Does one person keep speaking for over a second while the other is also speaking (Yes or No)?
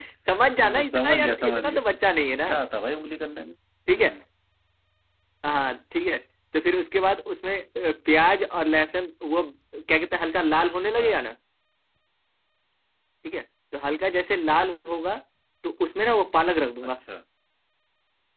Yes